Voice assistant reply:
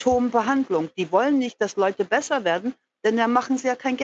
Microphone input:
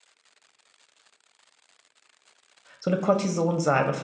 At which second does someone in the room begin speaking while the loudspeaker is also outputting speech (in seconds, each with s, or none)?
2.8 s